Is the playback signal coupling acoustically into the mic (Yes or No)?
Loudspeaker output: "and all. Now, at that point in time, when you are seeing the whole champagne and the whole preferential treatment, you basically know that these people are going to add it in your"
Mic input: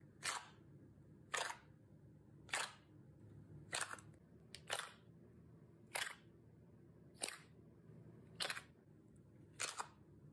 No